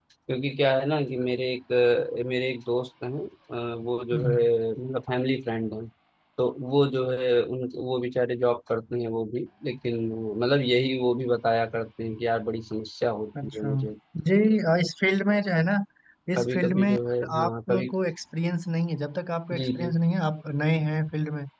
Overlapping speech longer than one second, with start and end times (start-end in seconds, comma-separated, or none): 16.4-17.9